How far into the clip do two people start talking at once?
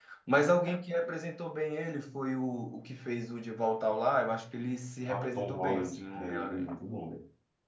5.1 s

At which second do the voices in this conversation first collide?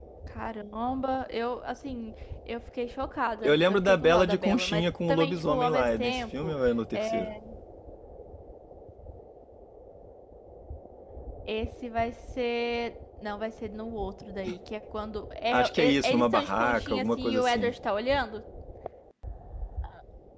3.4 s

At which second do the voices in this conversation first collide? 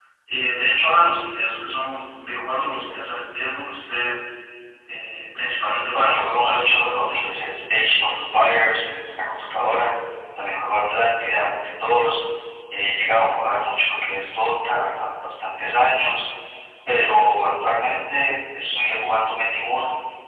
5.9 s

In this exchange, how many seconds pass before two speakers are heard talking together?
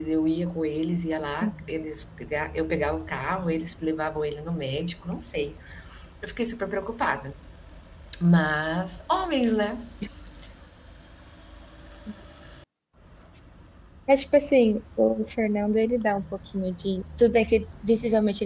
none

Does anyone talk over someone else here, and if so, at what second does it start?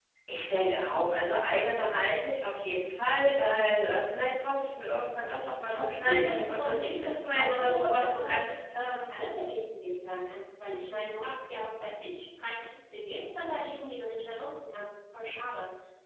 5.7 s

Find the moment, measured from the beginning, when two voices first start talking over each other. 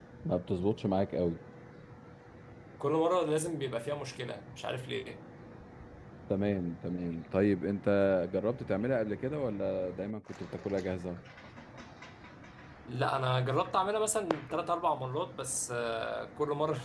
none

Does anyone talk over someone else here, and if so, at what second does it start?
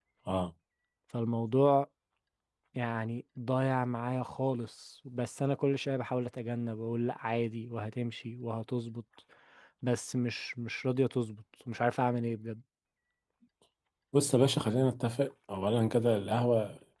none

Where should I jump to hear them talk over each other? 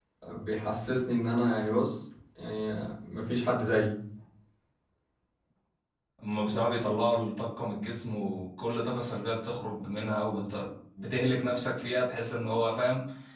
none

